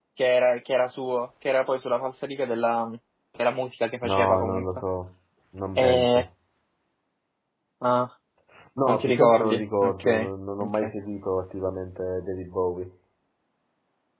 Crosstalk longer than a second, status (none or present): present